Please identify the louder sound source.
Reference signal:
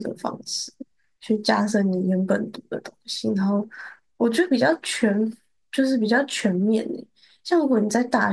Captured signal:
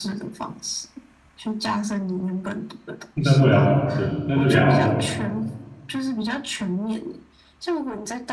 user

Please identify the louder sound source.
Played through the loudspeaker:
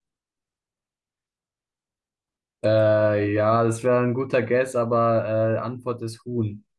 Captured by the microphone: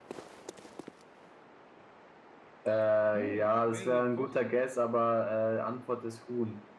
echo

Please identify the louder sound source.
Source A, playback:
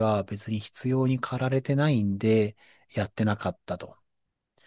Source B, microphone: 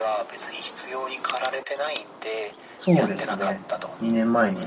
user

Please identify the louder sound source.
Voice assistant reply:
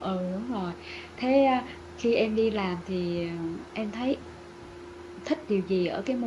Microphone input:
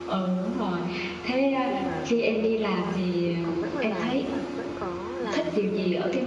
echo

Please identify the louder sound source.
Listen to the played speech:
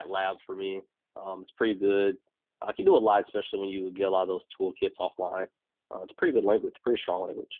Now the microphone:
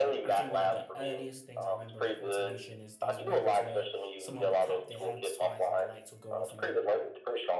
echo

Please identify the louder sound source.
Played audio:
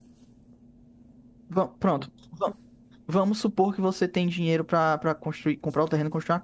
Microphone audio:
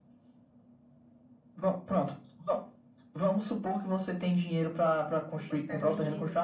echo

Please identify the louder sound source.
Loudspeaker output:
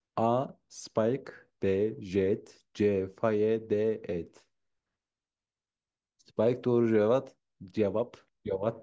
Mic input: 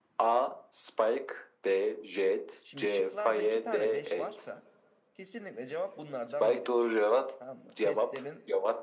echo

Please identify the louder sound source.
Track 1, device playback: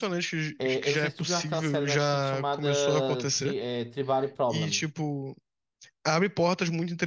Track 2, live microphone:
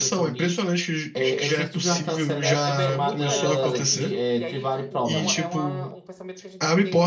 echo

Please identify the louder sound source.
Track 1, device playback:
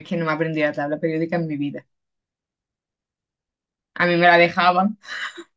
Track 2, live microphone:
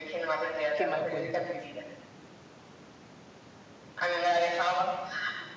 echo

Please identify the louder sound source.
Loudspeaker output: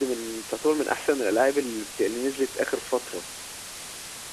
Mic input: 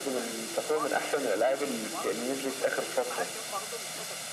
echo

